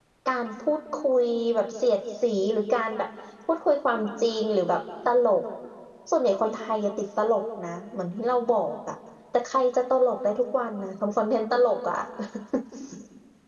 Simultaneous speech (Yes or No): No